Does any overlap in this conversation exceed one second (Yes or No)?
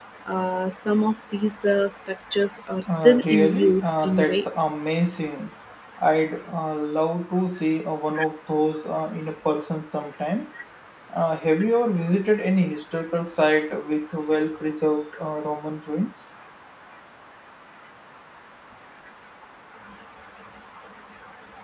Yes